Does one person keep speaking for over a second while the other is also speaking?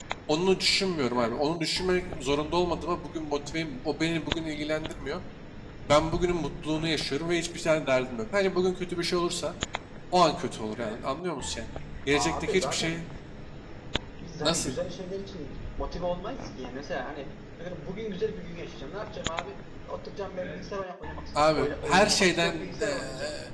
Yes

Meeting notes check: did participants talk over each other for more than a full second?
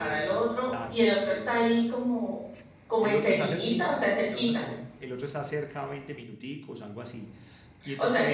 Yes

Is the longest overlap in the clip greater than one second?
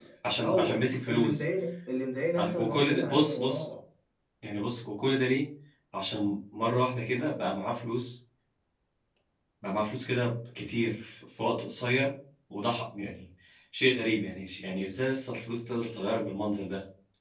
Yes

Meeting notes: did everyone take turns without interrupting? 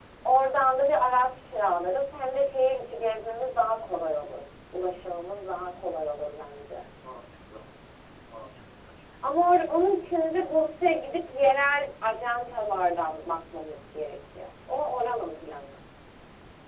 Yes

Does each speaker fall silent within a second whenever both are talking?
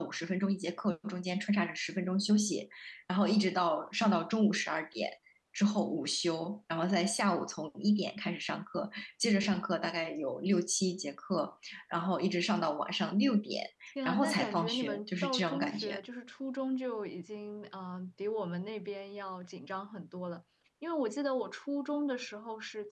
No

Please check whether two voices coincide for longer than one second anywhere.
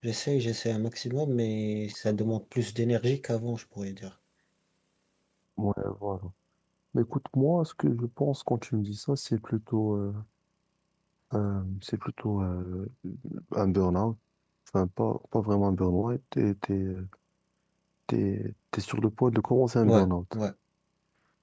No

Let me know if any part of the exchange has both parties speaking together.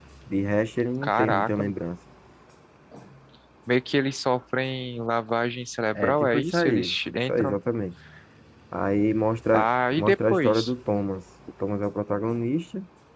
Yes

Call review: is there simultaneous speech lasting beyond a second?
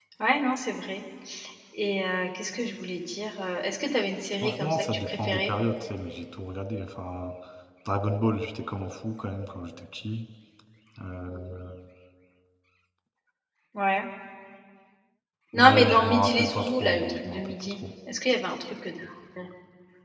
Yes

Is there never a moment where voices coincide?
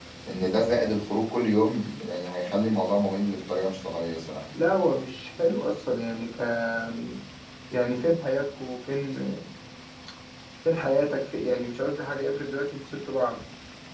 Yes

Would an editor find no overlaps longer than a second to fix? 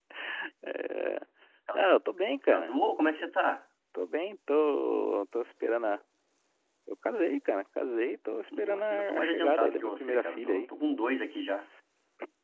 No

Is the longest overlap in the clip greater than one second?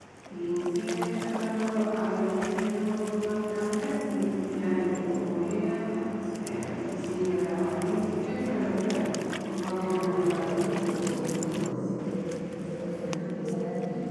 Yes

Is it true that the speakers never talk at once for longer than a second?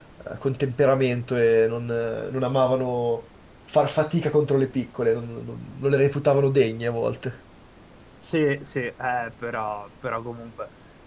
Yes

